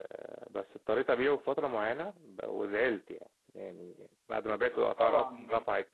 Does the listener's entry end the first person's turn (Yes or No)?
No